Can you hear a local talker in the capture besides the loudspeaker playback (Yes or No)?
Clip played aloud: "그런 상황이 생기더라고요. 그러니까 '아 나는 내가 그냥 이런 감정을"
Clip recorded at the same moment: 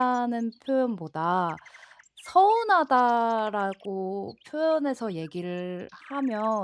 Yes